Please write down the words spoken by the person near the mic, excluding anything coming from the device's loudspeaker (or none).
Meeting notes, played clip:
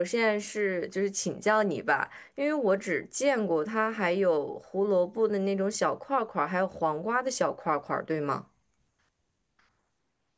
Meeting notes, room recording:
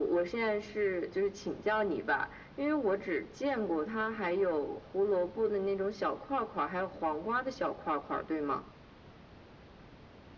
none